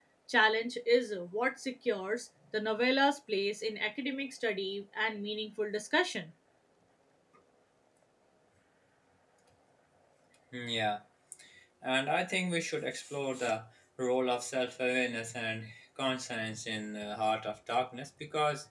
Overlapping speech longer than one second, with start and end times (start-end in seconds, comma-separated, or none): none